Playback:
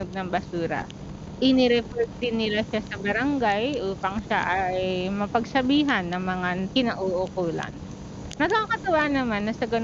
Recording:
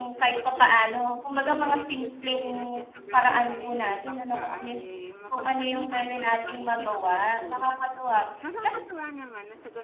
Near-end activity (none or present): present